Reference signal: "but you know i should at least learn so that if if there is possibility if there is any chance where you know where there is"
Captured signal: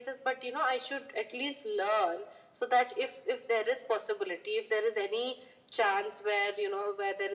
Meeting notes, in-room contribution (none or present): none